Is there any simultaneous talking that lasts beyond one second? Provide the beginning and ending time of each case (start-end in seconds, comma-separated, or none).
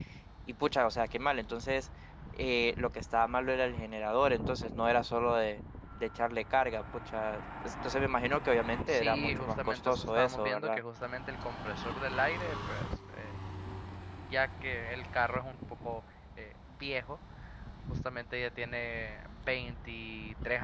8.9-10.8